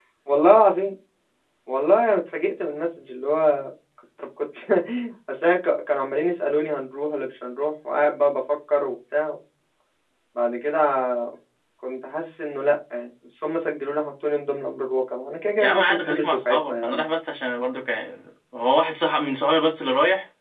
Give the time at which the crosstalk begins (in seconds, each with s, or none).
15.6 s